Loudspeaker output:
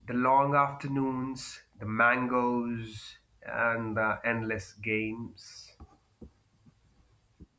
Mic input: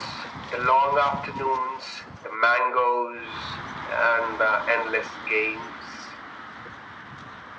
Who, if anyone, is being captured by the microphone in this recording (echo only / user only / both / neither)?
echo only